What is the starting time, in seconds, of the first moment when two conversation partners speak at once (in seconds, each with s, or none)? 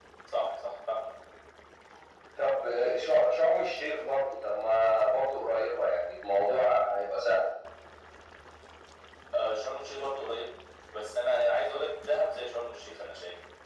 none